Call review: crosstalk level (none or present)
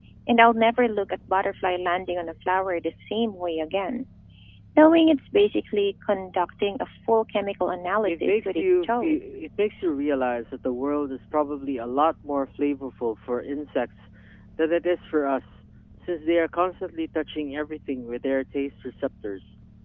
present